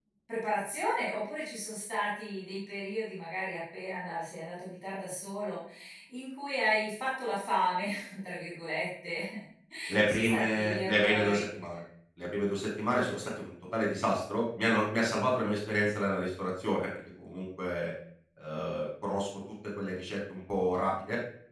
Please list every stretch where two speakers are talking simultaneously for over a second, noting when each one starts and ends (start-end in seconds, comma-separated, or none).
10.0-11.5